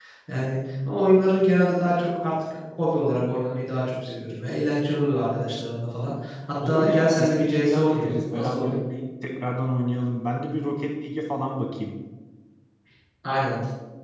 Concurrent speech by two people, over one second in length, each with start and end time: 6.7-8.7

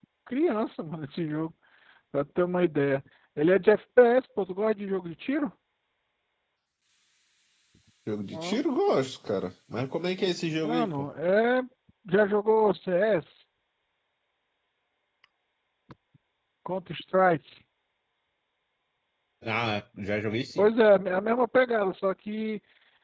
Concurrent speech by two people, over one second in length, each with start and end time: none

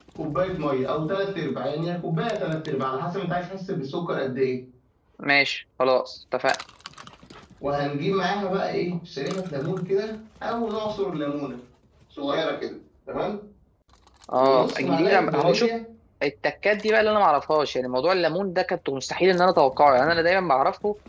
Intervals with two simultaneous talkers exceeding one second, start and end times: 14.3-15.7

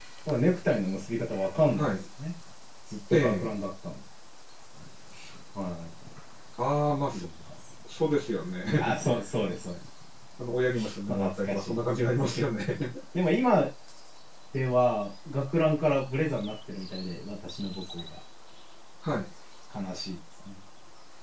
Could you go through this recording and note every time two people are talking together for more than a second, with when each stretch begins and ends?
11.1-12.4

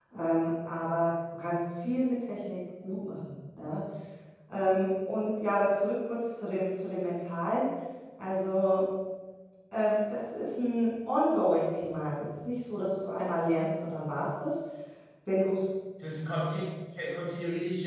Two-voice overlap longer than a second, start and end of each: none

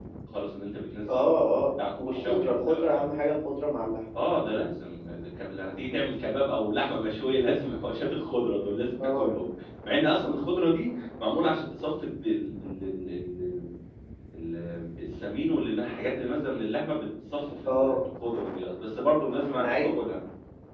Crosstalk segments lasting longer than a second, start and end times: 1.1-3.0

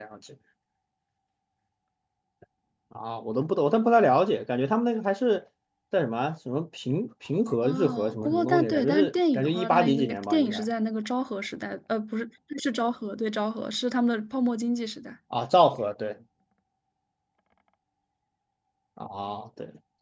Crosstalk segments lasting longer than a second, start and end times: 7.6-10.6

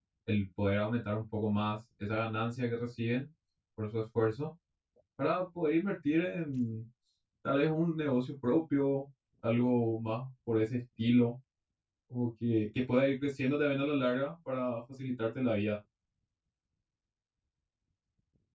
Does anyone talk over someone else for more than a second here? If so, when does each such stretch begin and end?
none

